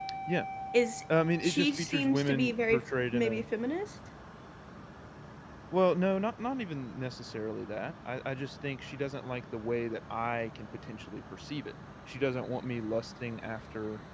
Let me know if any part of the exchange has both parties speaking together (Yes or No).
Yes